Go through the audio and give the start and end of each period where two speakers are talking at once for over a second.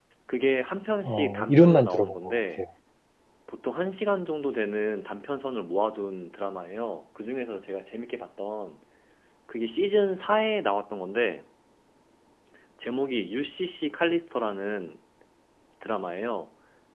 1.0-2.4

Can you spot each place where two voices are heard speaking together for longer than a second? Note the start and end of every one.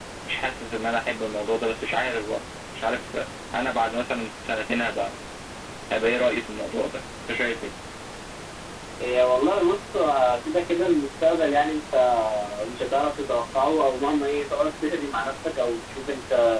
none

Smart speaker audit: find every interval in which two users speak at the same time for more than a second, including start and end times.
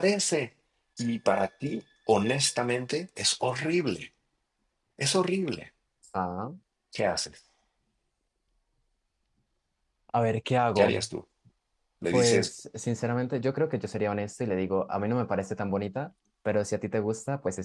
none

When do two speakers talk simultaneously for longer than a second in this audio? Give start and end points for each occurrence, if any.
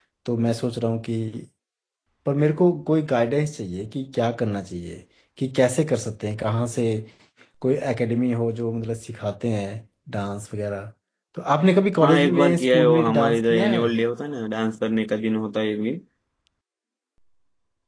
12.0-13.9

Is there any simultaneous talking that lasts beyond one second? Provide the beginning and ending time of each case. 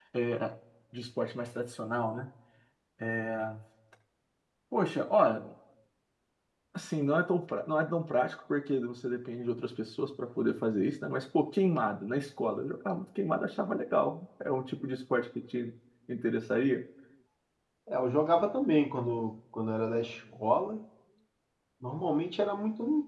none

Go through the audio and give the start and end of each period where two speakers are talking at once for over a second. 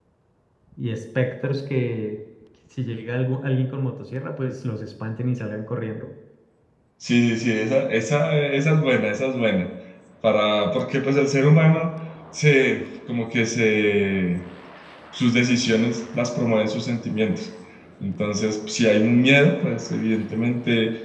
none

